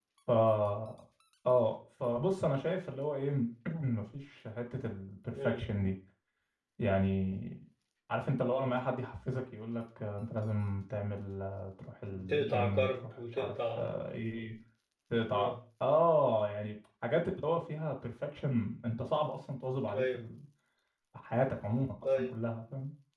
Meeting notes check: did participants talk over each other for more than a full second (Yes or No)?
Yes